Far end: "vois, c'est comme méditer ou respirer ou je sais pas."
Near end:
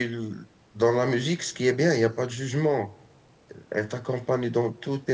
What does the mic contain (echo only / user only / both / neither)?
user only